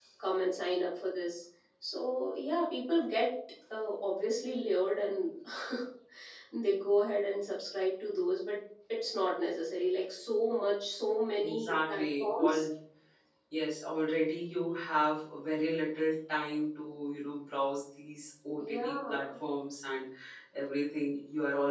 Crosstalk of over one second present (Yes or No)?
Yes